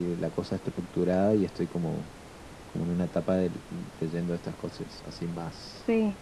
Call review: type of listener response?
taking over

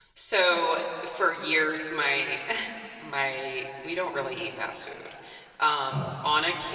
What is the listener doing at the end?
listening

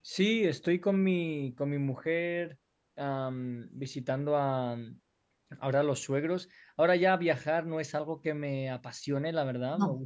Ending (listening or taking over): listening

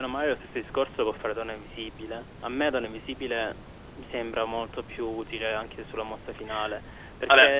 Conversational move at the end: listening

